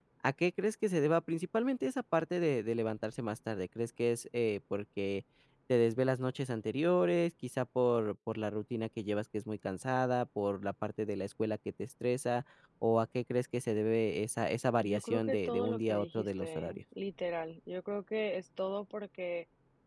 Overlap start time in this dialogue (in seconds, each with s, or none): 14.8 s